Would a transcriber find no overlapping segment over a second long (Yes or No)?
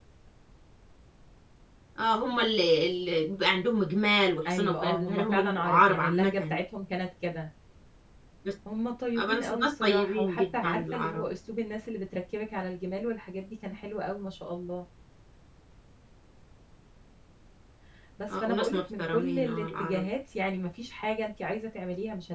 No